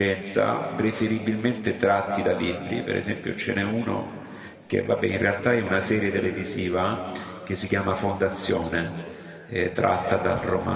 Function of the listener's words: listening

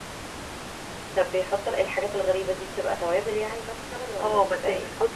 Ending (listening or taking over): taking over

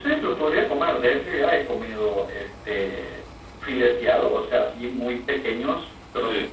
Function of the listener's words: listening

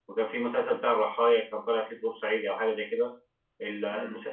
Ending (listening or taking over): listening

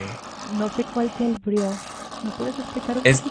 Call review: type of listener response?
taking over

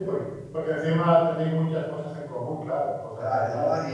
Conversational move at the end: taking over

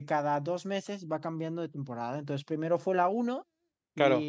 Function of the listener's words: listening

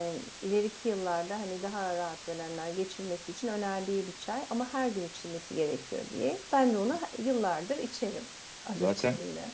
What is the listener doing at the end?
taking over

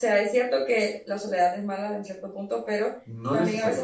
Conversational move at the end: listening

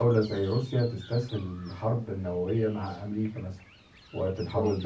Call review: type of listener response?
listening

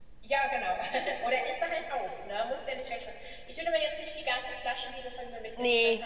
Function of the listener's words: listening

